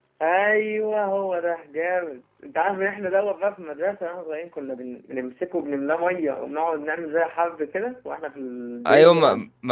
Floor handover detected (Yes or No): Yes